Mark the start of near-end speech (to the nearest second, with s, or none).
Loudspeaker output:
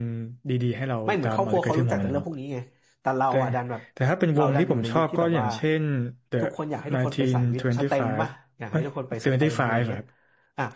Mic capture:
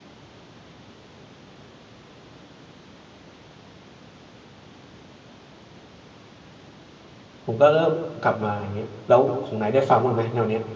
7 s